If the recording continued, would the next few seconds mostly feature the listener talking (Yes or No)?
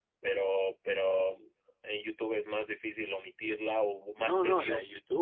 Yes